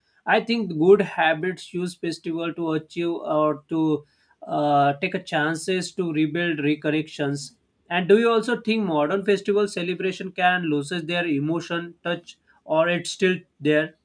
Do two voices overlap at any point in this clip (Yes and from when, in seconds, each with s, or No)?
No